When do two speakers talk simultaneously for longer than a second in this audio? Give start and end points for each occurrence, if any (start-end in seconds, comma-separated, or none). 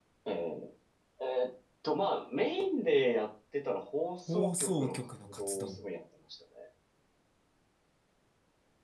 4.3-5.8